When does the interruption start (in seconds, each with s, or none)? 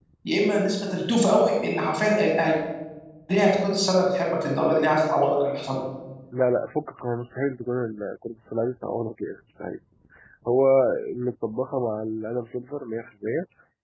none